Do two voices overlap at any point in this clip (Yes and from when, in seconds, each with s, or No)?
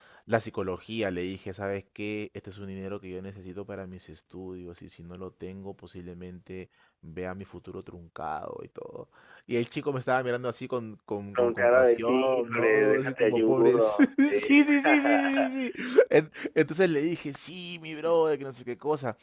Yes, from 11.3 s